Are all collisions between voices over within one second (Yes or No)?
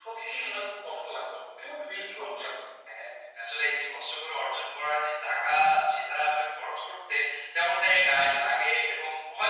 Yes